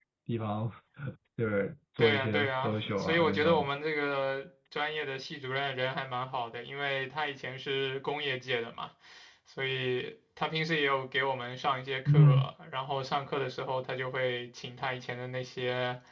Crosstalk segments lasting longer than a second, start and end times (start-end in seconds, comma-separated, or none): 2.0-3.7